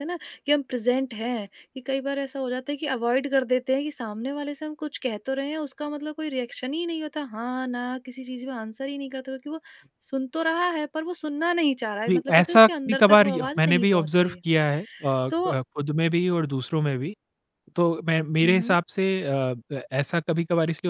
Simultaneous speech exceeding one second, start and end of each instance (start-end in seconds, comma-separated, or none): 12.1-14.3